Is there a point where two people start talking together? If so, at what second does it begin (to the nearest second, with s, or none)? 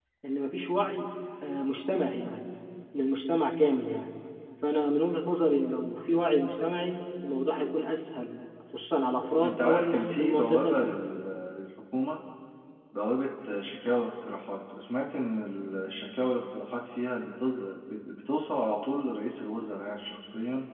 9 s